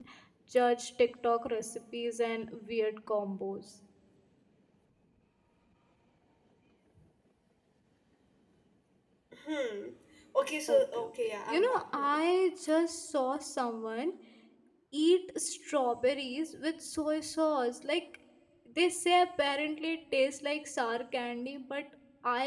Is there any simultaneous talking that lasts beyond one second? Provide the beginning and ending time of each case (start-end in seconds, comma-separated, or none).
10.7-12.2